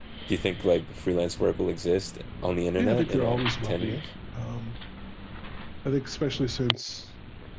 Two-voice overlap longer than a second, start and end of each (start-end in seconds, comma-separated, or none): 2.8-4.0